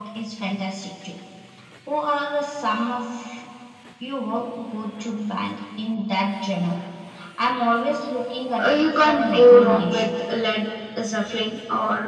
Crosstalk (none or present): present